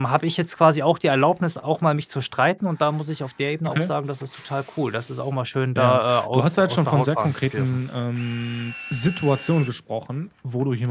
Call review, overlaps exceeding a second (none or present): present